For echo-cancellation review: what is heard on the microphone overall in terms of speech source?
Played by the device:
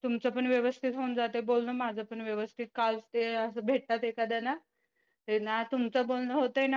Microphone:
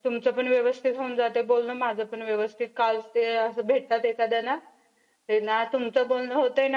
echo only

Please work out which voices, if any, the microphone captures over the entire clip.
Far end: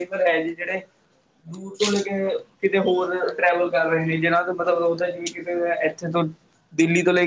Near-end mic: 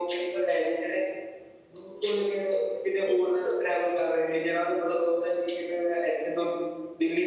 echo only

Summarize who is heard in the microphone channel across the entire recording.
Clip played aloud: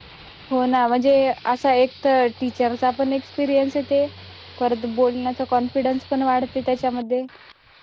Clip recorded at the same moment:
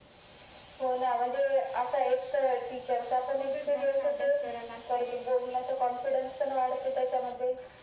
both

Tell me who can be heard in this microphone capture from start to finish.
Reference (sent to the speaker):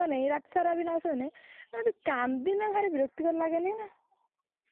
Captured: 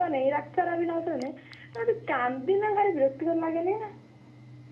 echo only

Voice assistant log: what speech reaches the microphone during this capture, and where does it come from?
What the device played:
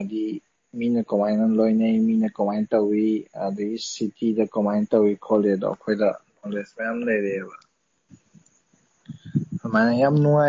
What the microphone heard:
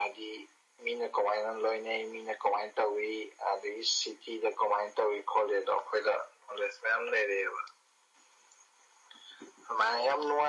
echo only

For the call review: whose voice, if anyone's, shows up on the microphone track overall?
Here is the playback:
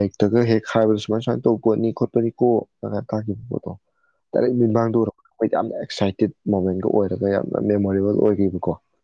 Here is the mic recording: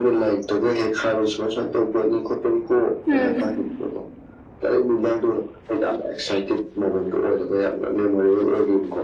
both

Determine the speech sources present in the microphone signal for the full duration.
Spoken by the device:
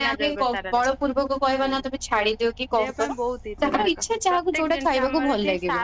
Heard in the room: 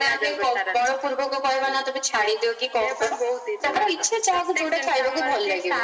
echo only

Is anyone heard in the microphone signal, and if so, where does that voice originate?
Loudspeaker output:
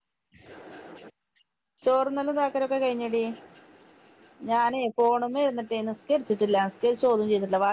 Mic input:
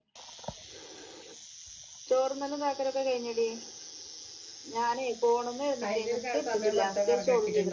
both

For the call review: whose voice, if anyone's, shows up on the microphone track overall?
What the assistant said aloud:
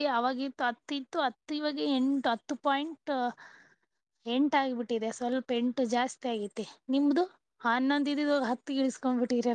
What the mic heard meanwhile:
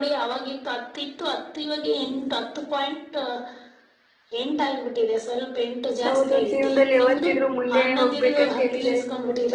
both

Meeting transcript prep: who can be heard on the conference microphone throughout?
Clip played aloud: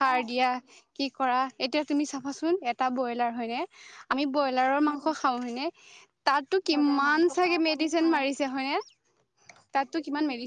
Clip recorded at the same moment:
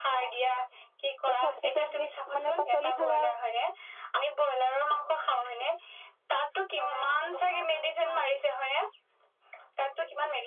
both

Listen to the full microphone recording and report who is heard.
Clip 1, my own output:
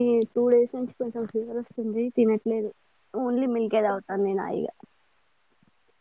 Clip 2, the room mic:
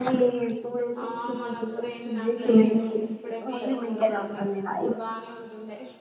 both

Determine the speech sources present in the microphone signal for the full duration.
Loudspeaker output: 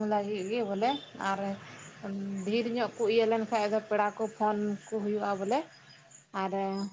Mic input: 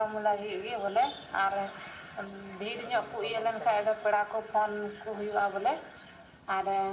both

